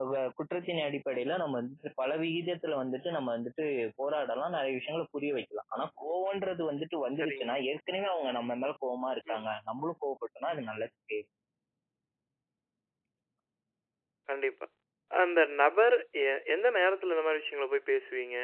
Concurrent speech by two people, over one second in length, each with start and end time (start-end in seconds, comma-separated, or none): none